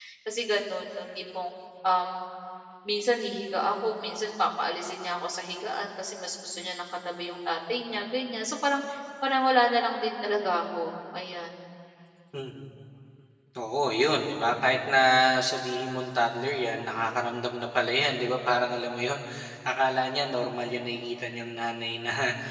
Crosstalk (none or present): none